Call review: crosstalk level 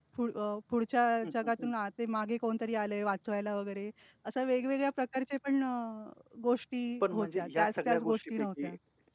present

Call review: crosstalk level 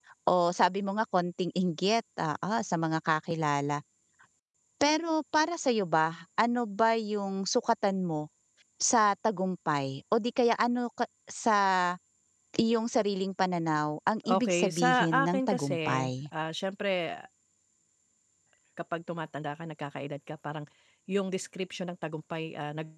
present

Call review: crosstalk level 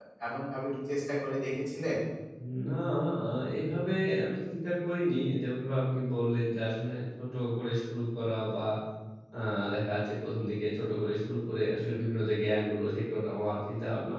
none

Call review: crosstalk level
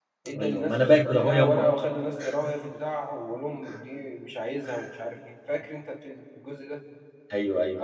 present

